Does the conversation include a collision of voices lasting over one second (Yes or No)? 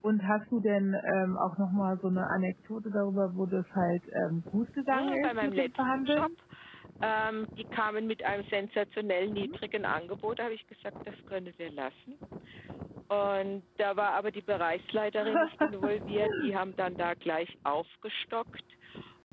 Yes